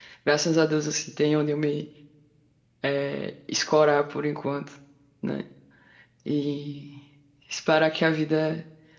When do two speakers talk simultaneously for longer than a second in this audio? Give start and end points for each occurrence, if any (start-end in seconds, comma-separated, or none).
none